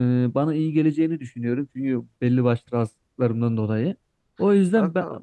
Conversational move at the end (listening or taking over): listening